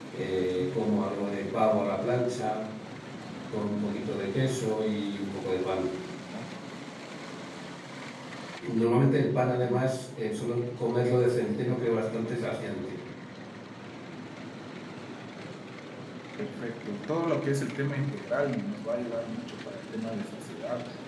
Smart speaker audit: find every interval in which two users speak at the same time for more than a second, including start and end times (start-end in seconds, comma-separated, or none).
none